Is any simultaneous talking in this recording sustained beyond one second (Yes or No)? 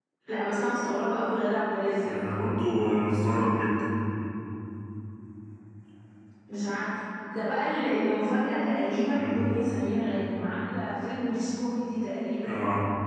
No